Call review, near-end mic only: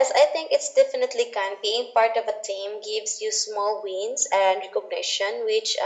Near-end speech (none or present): none